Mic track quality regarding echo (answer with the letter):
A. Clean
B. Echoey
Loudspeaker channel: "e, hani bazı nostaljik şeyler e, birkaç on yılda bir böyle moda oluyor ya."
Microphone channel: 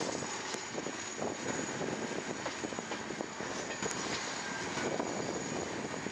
A